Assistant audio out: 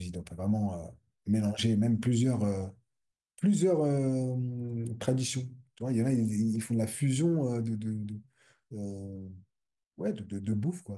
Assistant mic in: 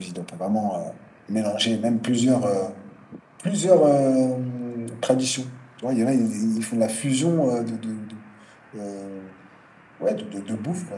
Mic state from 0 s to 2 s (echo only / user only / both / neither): echo only